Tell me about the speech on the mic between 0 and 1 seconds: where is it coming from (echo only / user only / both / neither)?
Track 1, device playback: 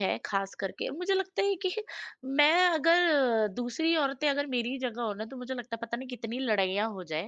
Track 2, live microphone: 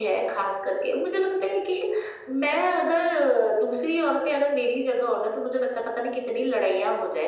echo only